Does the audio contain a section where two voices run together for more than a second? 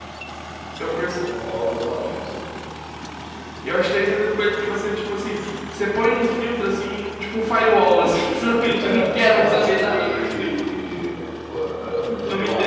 Yes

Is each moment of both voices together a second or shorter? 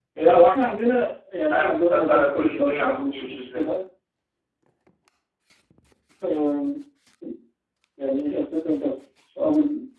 No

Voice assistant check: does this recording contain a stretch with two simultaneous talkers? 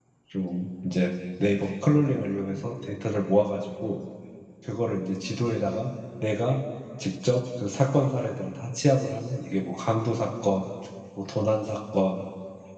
No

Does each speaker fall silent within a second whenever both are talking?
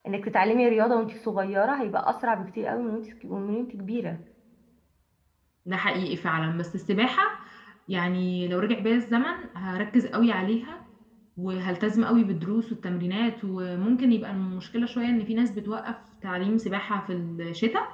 Yes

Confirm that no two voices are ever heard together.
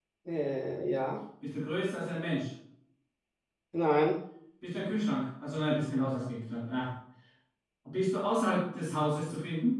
Yes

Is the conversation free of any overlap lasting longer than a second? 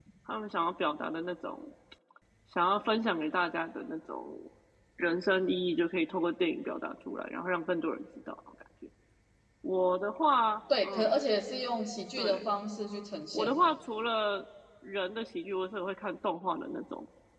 Yes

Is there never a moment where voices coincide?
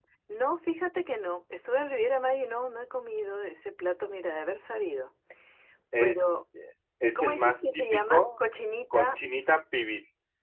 No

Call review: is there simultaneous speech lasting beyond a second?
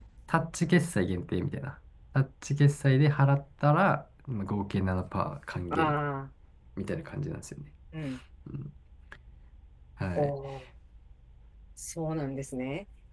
No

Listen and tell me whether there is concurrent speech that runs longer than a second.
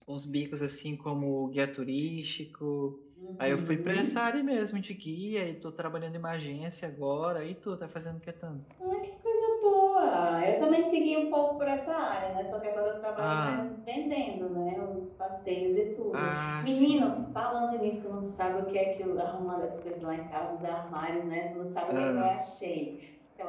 Yes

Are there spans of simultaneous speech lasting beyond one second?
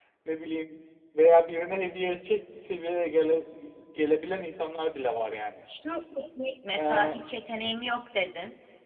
No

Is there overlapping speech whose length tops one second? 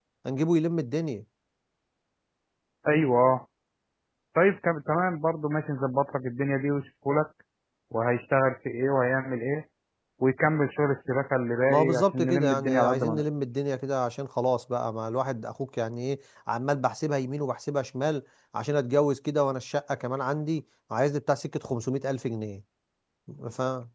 Yes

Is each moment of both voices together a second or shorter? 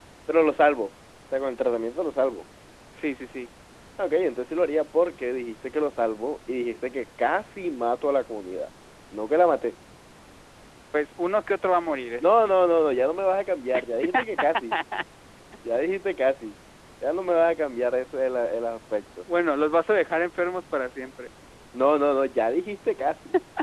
Yes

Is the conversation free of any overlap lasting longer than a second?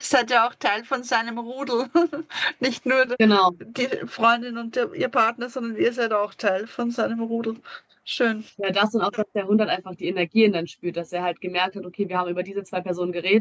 Yes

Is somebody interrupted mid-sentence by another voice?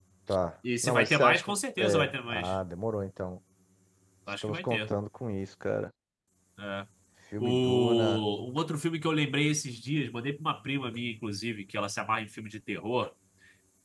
Yes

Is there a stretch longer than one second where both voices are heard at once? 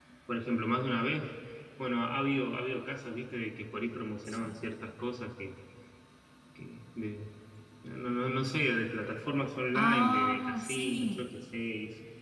Yes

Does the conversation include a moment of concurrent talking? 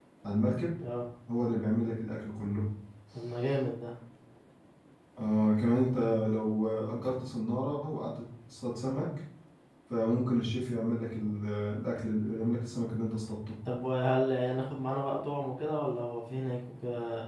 No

